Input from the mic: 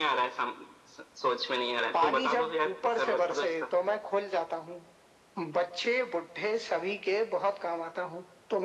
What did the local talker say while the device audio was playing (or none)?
none